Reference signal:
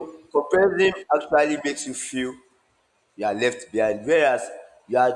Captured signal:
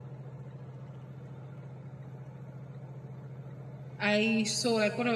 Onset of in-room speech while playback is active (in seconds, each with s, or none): 4.0 s